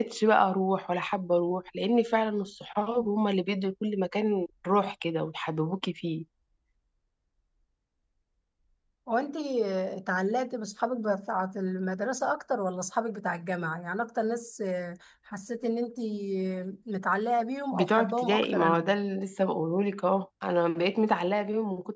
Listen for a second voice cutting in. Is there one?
Yes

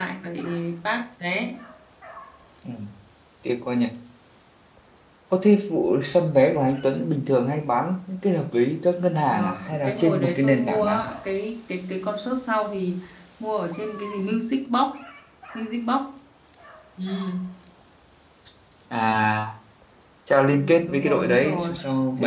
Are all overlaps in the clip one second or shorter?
No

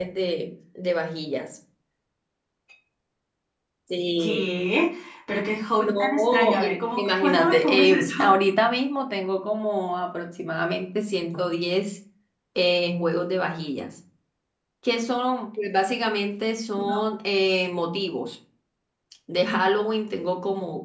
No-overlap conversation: No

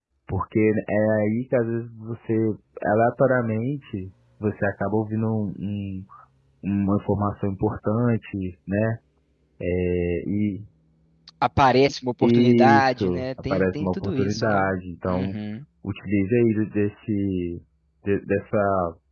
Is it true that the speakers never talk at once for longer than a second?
No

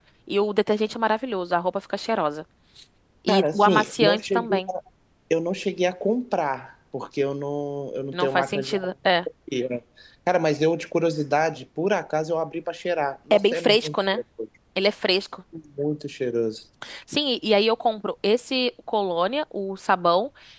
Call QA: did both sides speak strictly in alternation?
No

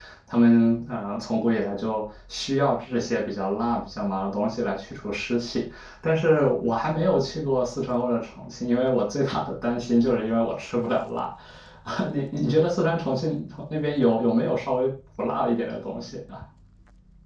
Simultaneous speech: No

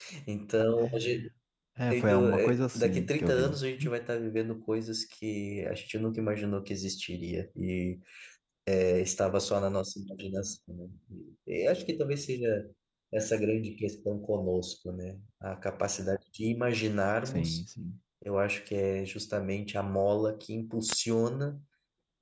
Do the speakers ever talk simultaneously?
Yes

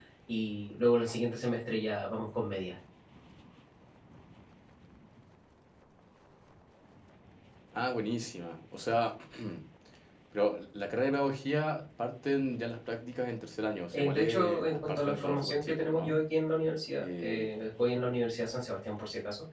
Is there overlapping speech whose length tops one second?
Yes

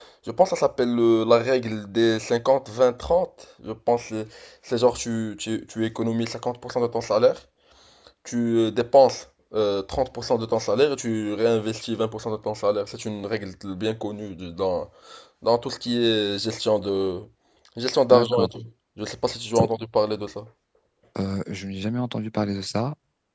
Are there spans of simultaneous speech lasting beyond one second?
No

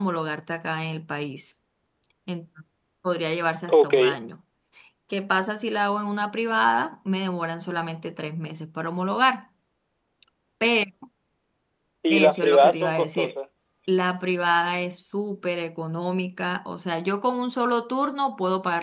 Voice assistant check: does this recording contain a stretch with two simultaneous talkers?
Yes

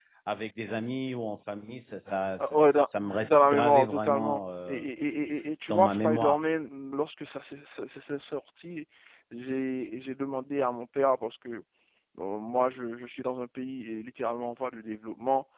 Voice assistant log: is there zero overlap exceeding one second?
No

